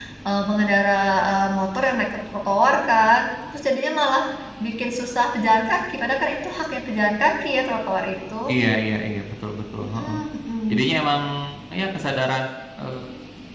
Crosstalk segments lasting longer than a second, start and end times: none

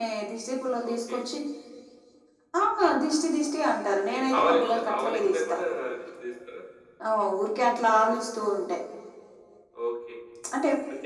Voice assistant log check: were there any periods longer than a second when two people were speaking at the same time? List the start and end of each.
3.9-5.6

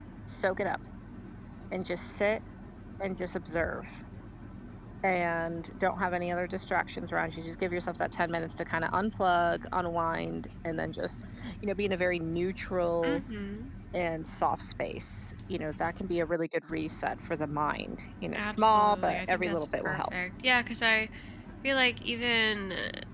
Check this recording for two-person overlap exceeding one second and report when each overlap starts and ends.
18.3-20.1

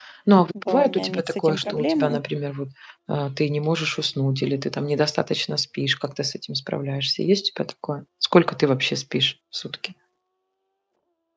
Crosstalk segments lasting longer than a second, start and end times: 0.6-2.2

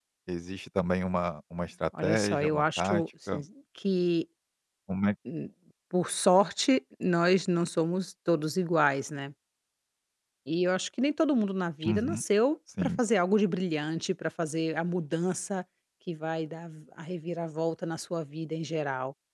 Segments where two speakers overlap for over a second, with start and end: 2.0-3.4

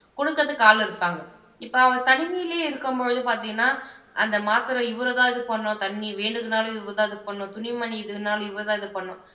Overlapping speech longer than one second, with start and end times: none

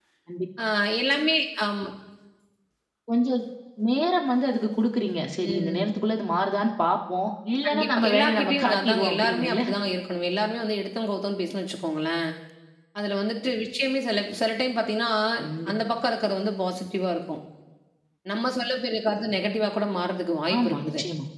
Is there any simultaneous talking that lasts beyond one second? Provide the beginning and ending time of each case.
7.7-9.6

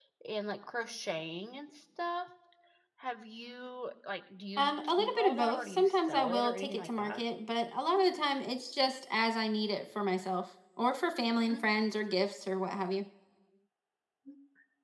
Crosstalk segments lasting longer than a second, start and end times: 4.6-7.2

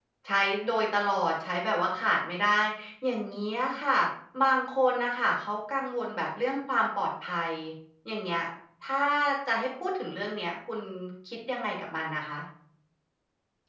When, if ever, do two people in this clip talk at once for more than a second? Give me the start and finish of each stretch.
none

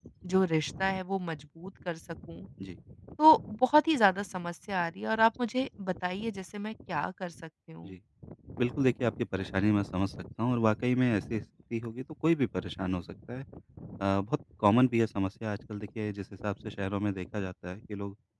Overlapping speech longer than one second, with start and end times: none

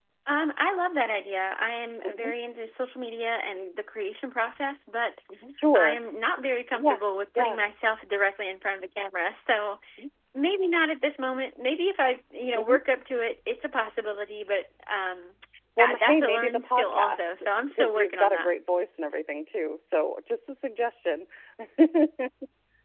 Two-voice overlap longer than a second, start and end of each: 15.8-18.5

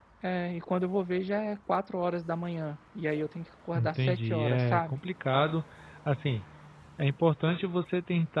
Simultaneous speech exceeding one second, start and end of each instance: 3.8-5.0

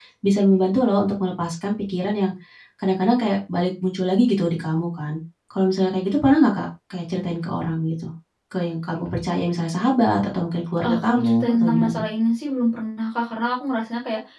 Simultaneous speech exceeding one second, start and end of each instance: 10.8-12.0

